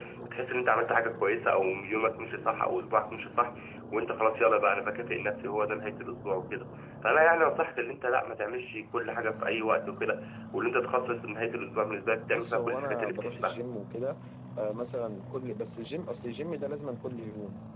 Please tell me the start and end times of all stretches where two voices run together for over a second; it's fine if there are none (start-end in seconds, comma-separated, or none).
12.3-13.6